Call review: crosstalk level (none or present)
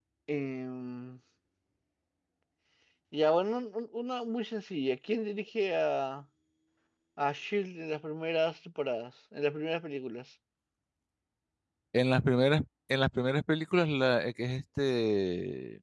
none